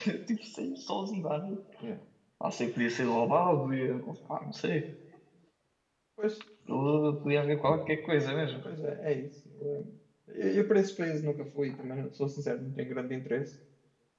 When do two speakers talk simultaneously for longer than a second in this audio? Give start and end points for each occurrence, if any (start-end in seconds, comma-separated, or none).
none